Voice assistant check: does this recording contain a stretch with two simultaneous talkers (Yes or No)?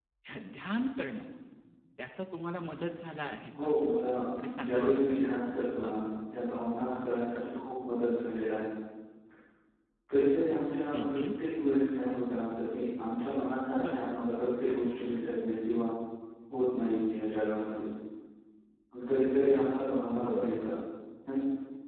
Yes